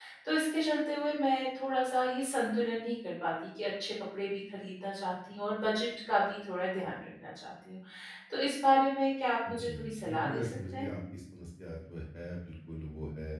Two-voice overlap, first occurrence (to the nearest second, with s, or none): 9 s